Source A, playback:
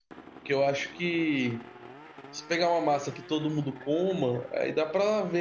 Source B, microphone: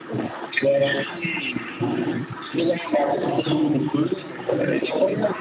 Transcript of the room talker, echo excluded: none

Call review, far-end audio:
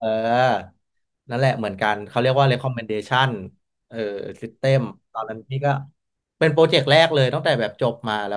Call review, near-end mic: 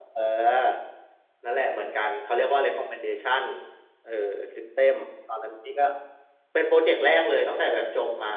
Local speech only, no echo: อืม

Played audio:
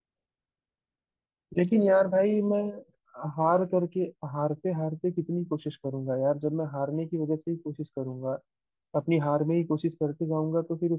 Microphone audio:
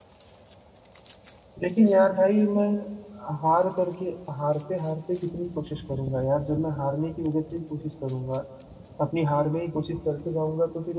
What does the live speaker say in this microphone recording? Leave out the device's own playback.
none

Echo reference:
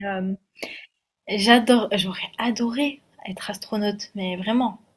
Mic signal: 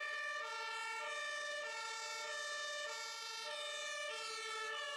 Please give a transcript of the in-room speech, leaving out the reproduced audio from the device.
none

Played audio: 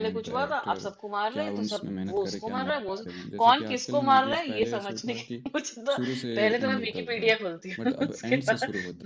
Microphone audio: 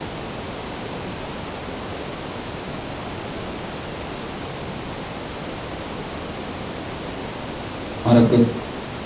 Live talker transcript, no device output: और आपको

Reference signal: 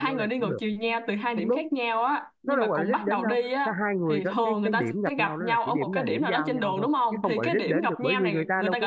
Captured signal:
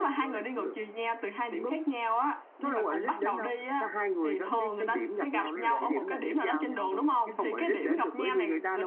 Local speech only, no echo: trừ con vịt bị què thôi

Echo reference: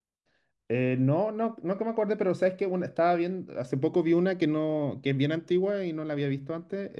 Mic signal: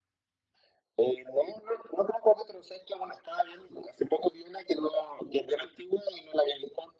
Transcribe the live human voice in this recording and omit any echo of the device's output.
none

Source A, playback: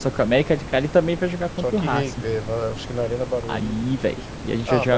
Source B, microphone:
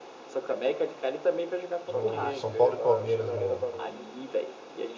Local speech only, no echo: o São Paulo e Palmeiras no,

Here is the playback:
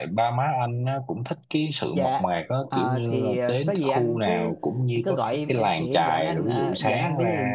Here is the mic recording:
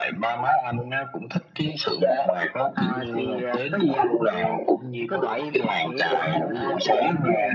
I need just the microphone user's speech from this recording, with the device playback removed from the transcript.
none

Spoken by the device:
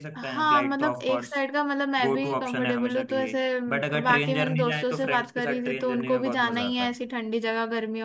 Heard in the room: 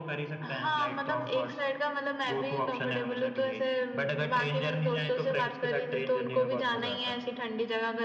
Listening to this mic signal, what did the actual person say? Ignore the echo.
none

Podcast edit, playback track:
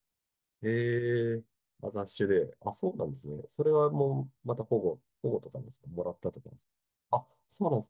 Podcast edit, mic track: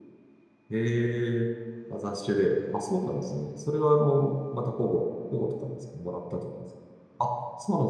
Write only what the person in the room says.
none

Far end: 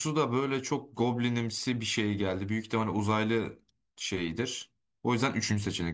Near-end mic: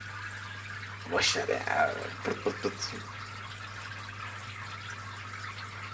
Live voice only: Boş ver ya. Pırt pırt pırt.

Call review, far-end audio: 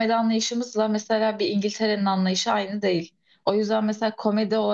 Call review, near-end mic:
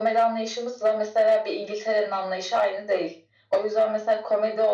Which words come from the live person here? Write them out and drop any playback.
none

